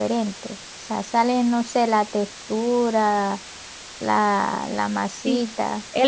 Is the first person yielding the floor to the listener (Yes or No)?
Yes